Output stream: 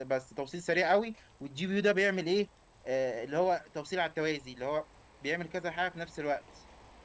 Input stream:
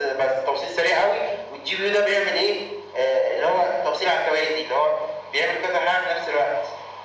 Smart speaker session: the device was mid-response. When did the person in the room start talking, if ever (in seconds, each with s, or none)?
none